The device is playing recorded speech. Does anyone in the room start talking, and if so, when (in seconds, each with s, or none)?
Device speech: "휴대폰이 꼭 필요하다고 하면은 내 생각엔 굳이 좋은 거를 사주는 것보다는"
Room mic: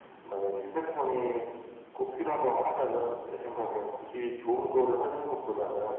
none